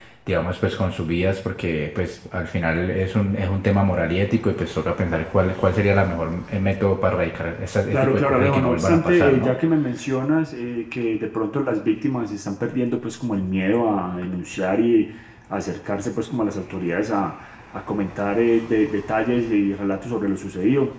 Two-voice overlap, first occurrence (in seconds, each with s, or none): 7.9 s